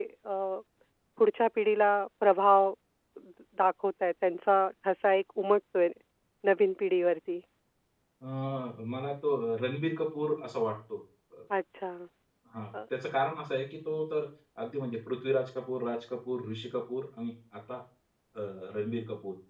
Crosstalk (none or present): none